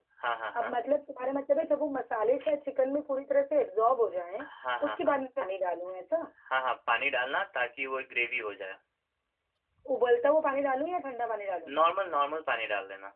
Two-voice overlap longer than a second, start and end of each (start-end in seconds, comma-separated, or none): none